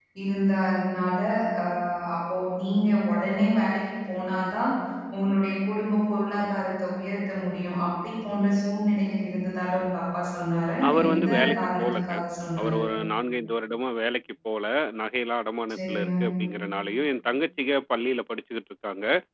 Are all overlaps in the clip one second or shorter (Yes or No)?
No